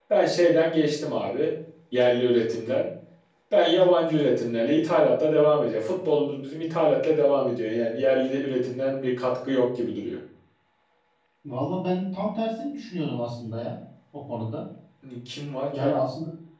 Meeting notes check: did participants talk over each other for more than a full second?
No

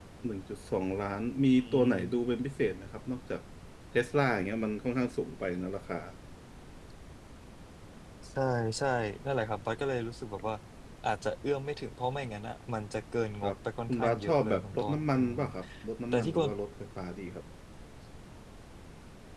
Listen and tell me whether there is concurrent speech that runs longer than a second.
Yes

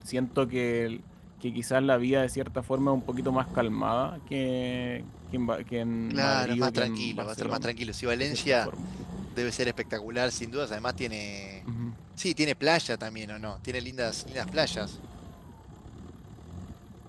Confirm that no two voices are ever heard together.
No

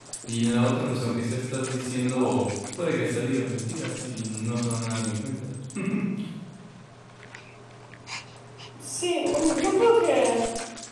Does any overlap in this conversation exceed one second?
No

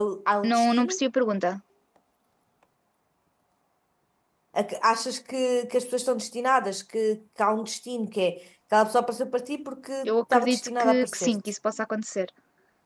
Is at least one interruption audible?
Yes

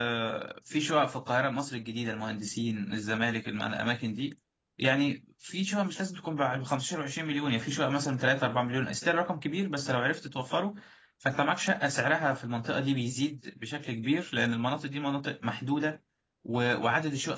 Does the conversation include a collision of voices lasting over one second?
No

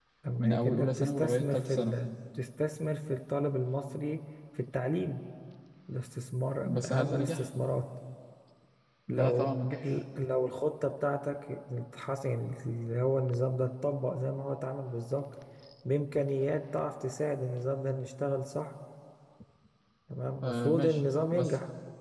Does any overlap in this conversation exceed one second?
Yes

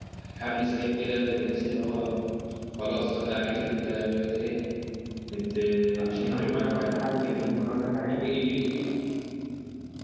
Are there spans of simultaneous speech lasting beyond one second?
Yes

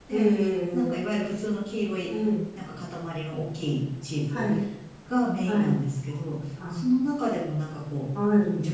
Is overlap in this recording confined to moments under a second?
Yes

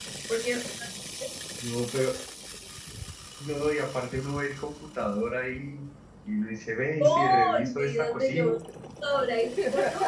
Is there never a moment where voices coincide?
No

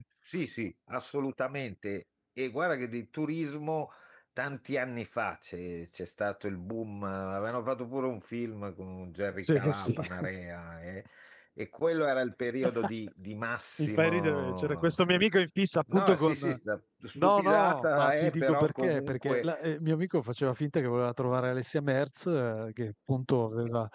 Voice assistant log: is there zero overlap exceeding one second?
No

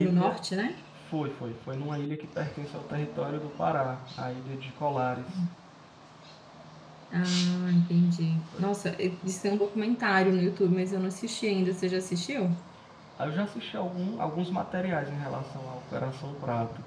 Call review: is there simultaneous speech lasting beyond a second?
No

